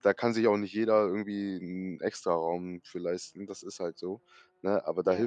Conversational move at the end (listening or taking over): listening